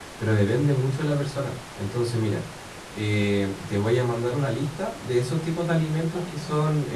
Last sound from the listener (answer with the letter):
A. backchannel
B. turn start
A